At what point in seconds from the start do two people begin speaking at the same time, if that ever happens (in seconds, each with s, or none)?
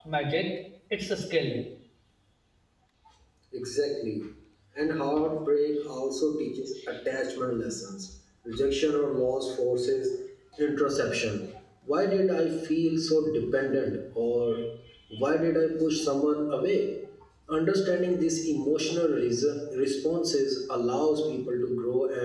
none